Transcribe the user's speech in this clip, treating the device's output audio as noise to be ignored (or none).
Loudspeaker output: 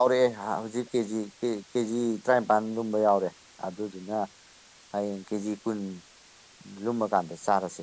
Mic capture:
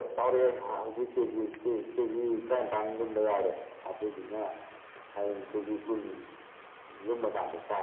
none